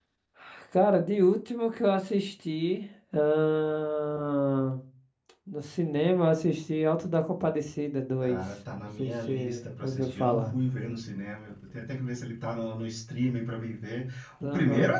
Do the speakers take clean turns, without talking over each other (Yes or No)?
No